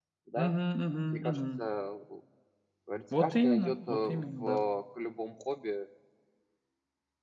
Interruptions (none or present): present